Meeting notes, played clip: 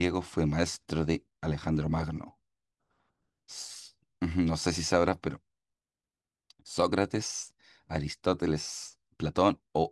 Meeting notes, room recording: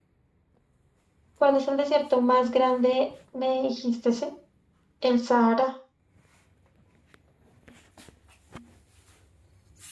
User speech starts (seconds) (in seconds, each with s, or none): 1.4 s